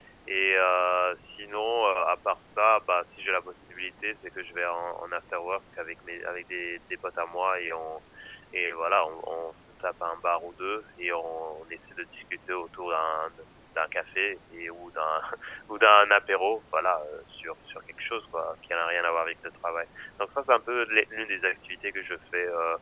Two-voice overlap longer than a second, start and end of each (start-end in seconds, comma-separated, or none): none